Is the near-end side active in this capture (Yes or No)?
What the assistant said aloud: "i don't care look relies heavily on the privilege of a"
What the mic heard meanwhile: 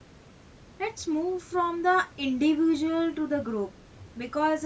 Yes